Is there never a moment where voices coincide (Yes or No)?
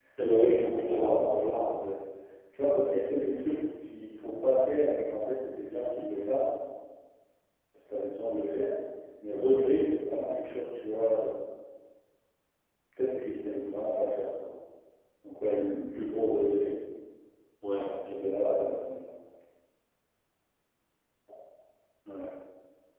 No